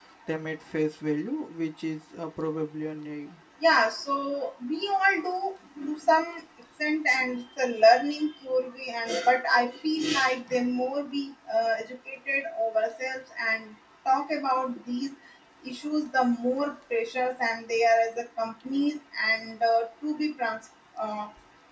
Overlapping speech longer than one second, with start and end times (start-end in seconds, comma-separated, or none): none